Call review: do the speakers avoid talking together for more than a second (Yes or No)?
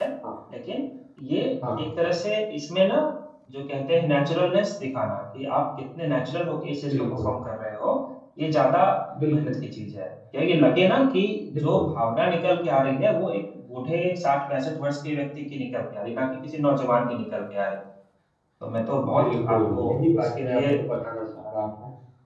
No